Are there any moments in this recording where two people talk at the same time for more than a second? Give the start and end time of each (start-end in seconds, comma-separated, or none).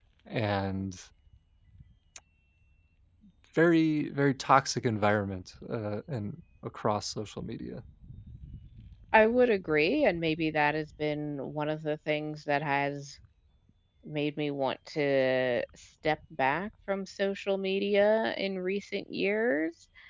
none